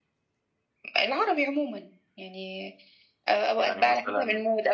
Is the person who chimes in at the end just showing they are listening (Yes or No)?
Yes